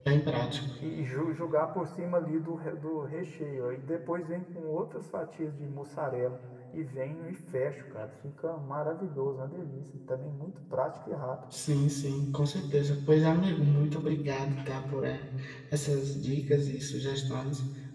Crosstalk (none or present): none